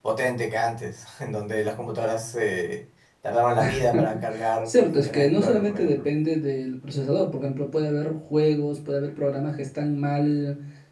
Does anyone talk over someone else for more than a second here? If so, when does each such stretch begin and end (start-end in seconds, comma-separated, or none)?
4.7-6.0